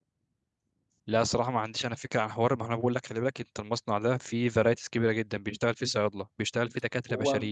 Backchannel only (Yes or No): Yes